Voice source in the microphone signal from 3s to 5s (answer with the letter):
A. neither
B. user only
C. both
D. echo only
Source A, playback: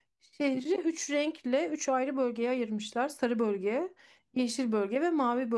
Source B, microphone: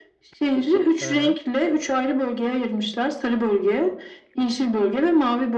D